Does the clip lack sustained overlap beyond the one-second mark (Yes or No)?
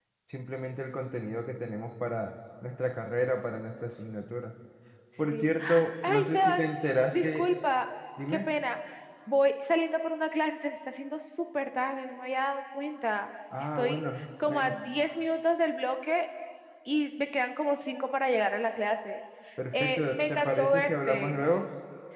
No